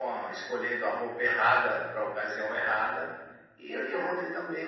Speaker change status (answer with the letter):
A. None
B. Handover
A